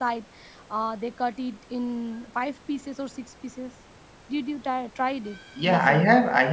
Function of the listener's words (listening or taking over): taking over